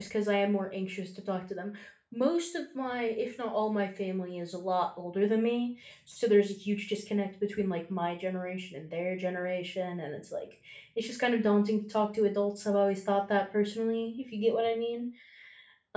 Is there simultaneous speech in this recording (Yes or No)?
No